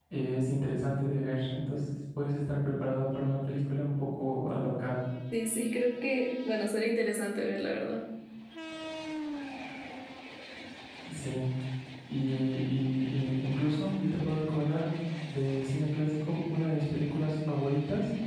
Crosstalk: none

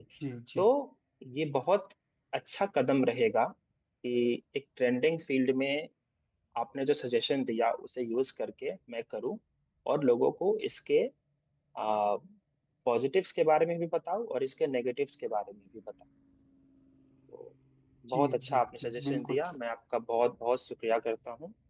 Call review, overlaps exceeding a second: present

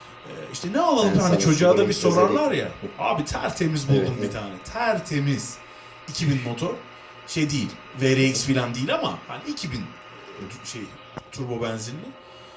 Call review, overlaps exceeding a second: present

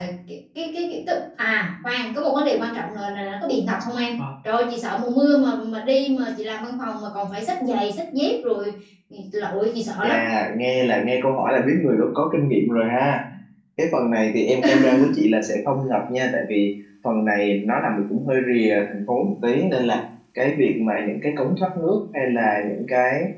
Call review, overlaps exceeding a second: none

